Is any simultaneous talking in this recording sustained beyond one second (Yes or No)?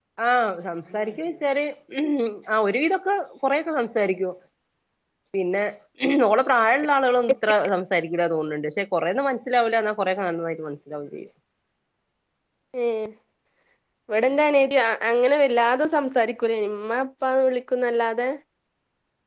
No